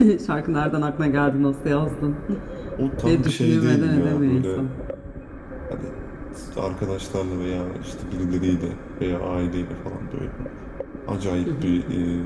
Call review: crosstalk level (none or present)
present